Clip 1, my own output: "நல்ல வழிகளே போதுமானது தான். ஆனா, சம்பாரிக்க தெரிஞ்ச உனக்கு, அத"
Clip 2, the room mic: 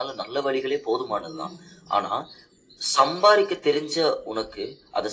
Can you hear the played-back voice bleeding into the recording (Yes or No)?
Yes